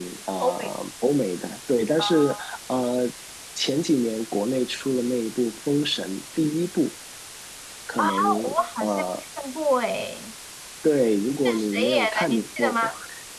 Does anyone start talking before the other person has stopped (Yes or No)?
Yes